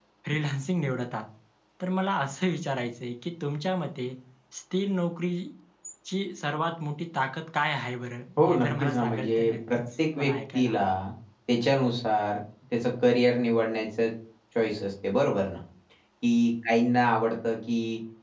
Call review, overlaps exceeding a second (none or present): present